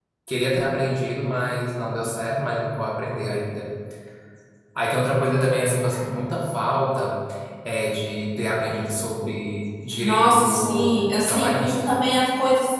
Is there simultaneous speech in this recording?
Yes, from 10.0 s

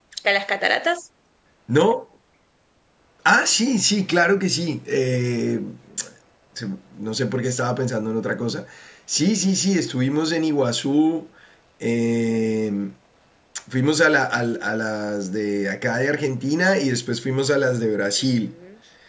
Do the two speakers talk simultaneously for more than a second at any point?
No

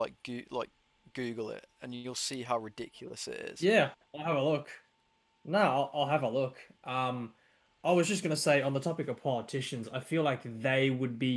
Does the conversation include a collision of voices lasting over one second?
No

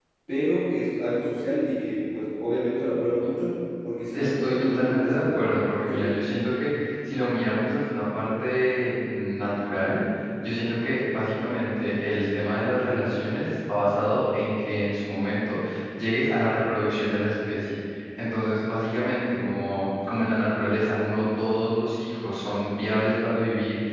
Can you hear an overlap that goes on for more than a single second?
Yes, from 4.1 s

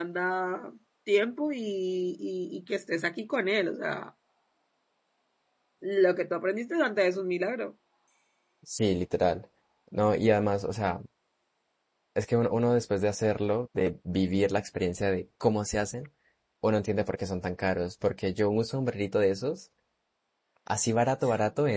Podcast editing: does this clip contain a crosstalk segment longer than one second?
No

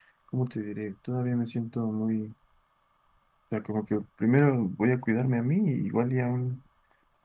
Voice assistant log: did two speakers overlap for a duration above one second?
No

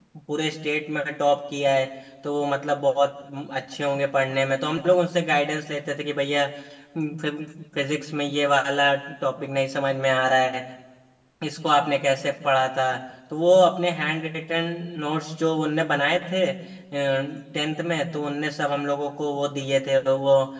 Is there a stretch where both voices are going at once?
No

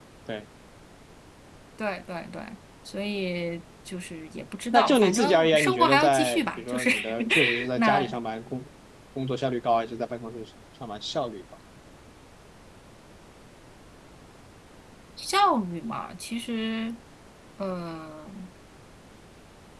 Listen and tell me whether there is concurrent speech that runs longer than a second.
Yes, from 4.7 s

